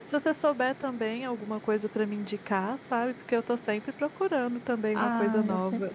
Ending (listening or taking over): taking over